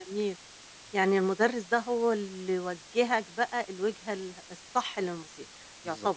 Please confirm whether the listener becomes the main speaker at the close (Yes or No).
Yes